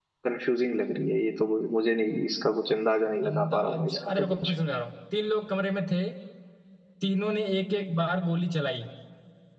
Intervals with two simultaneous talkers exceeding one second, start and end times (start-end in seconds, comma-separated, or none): 3.3-4.5